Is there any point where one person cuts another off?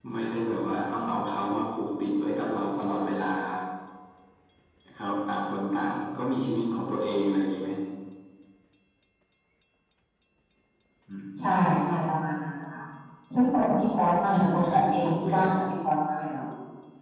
Yes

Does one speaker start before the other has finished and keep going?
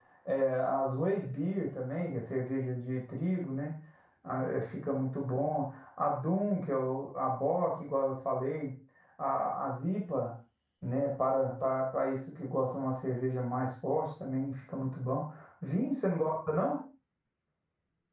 No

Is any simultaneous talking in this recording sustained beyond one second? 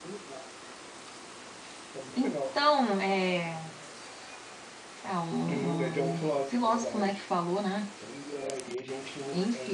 Yes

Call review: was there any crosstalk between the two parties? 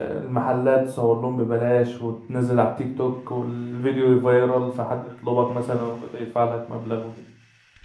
No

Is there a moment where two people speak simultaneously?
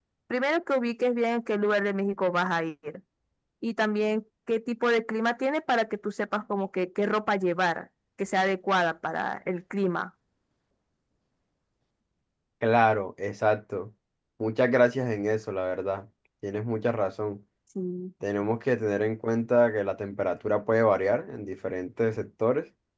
No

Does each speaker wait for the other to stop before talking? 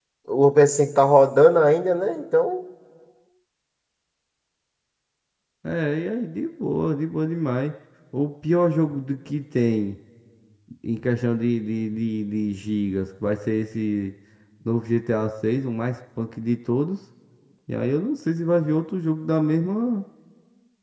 Yes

